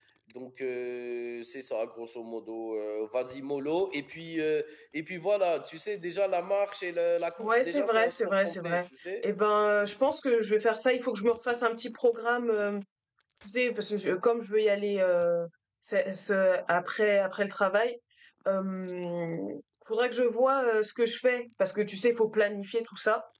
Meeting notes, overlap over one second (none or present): present